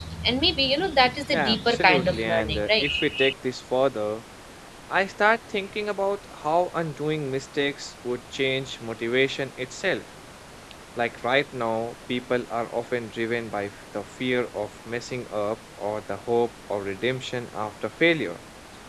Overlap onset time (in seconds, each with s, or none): 1.3 s